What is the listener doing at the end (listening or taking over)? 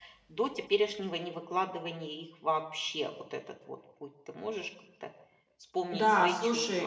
taking over